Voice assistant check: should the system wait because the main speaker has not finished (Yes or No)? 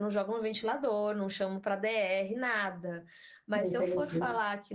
Yes